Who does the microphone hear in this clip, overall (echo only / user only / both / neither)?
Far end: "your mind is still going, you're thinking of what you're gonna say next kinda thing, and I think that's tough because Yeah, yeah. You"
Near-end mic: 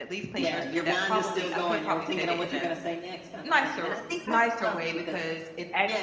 both